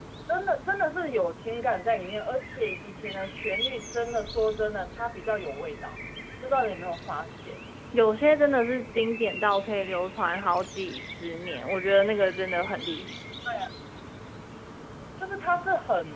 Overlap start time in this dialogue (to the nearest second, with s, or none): none